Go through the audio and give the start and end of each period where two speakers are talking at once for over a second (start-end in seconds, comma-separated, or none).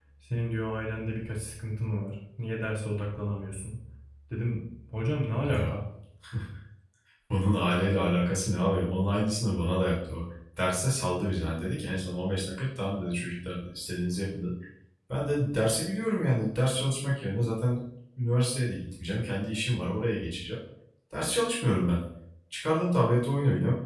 none